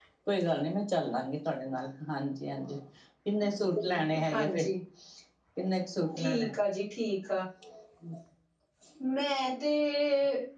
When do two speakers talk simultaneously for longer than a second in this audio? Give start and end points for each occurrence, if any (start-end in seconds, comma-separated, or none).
none